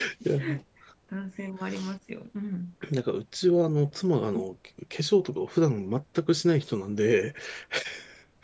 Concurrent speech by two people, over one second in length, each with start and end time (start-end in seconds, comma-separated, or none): none